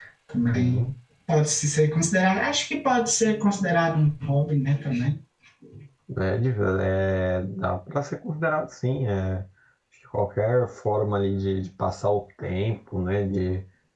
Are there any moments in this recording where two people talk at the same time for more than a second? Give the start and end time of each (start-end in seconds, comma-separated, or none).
none